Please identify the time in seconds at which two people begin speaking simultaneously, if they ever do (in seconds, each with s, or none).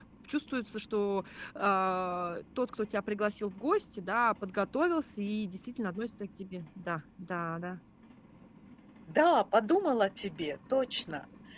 none